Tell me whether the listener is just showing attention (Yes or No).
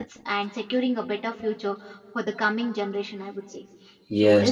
No